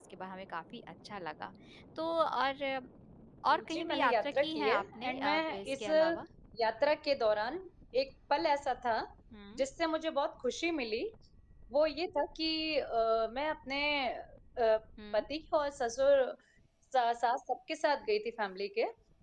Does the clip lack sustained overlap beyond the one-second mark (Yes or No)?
No